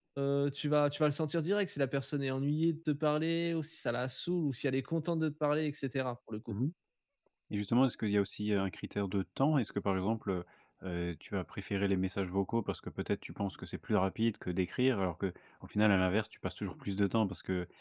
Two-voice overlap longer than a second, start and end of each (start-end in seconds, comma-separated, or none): none